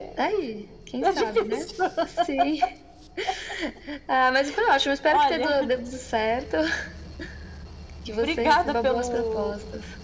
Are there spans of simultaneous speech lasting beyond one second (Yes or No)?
Yes